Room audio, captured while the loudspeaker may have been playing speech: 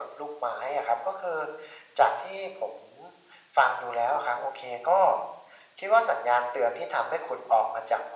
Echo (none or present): present